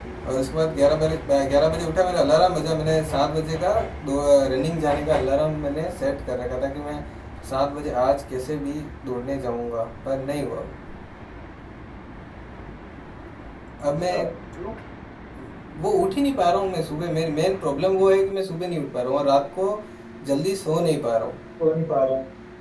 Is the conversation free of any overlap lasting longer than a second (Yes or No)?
Yes